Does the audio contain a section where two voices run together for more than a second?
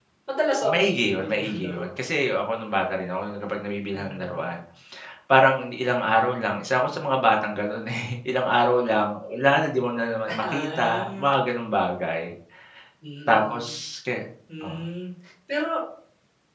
Yes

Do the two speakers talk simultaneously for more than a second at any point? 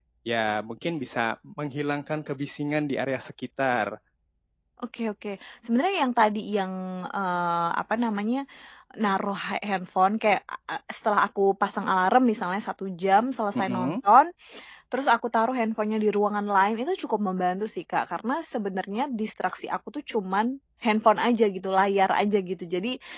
No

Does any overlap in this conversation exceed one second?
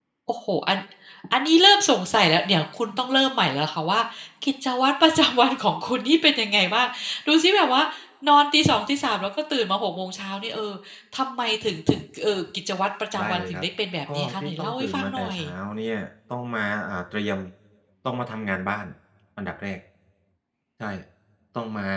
Yes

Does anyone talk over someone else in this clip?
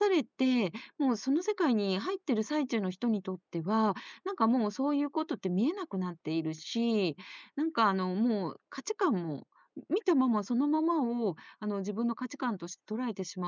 No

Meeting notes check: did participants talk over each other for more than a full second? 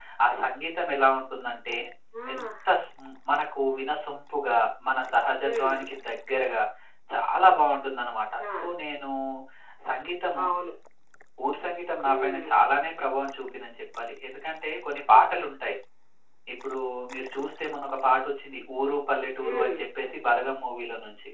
No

